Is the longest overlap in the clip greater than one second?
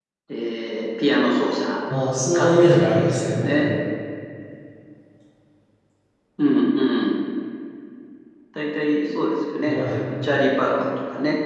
Yes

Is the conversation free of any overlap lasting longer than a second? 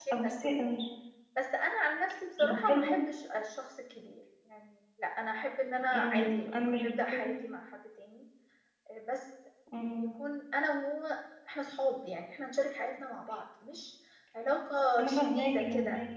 No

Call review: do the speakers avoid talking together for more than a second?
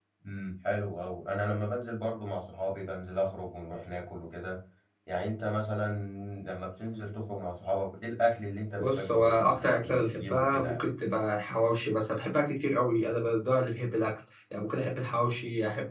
No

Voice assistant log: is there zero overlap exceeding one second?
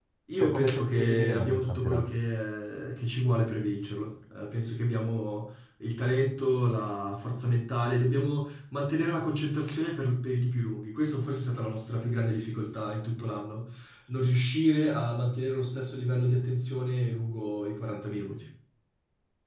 No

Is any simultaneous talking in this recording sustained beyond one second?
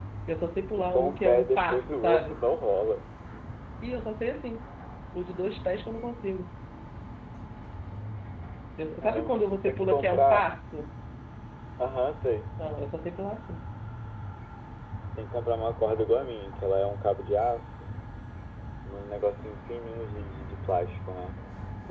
Yes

